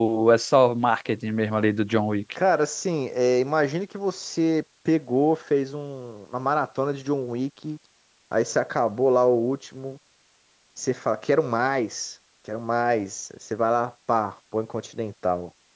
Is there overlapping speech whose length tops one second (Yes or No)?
No